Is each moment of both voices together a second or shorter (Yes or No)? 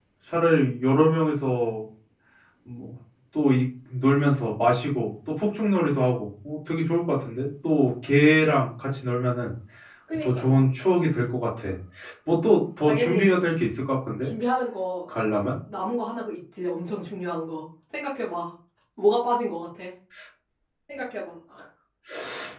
Yes